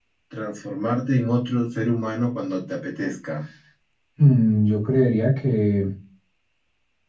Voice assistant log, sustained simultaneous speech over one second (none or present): none